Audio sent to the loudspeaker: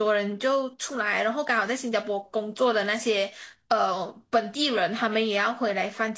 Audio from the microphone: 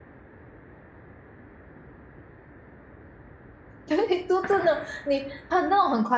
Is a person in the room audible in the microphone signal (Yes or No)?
Yes